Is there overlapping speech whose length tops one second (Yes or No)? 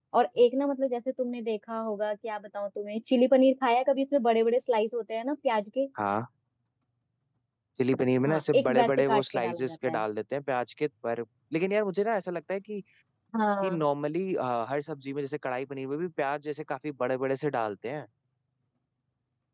Yes